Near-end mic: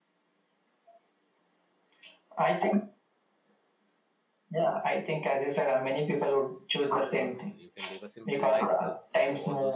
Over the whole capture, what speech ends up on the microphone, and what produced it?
both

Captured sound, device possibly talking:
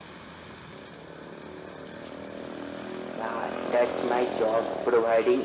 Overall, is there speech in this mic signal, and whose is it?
echo only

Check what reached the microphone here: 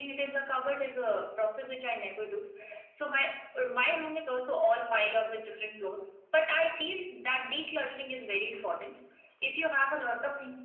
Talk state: echo only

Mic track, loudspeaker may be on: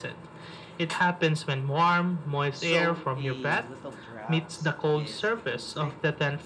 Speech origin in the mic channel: both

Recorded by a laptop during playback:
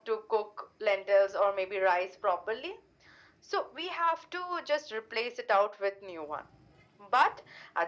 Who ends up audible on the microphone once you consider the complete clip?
echo only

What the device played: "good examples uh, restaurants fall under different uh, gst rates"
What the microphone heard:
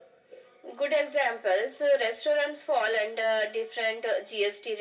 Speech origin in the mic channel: echo only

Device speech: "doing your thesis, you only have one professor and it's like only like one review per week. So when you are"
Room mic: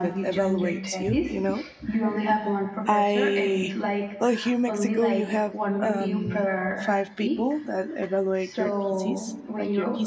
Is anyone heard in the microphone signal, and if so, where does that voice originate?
both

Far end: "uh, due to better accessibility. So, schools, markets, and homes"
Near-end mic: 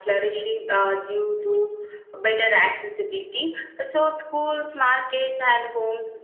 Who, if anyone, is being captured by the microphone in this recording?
echo only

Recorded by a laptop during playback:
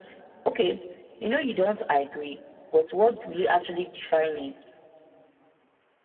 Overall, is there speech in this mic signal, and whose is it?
echo only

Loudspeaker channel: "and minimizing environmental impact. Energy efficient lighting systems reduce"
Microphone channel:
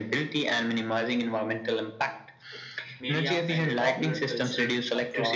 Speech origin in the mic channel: both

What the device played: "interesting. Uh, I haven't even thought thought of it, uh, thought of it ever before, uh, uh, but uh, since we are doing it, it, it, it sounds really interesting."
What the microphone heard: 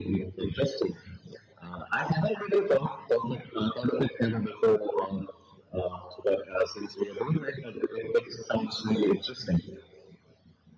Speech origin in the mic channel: echo only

